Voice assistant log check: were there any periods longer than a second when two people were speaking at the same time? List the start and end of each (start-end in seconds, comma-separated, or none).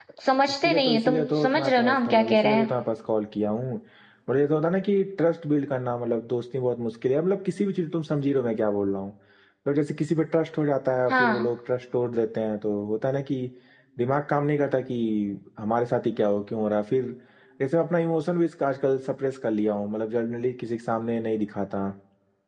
0.6-2.7